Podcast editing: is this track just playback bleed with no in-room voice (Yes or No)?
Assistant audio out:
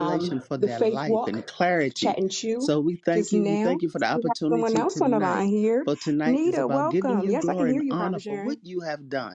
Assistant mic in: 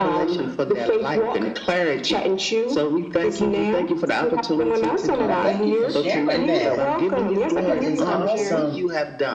No